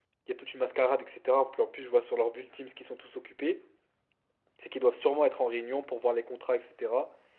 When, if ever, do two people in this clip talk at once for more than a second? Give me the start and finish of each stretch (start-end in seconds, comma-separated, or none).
none